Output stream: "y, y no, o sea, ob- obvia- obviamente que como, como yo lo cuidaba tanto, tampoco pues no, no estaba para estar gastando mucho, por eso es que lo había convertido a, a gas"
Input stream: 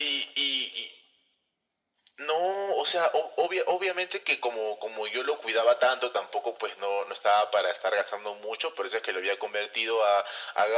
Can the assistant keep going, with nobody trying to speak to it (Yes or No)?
Yes